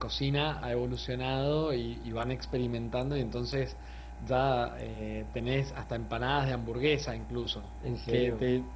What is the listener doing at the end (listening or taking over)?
listening